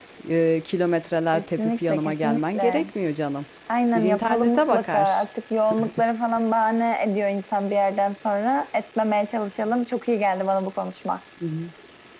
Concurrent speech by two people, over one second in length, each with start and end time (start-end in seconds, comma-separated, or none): 1.3-2.9, 4.0-5.2